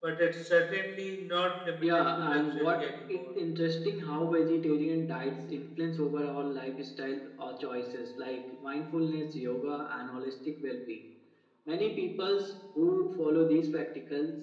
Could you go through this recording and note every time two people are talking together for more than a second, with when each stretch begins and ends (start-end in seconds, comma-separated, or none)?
1.8-3.3